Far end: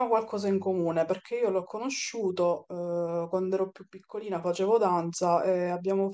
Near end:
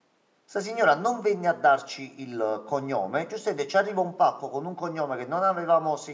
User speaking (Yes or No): Yes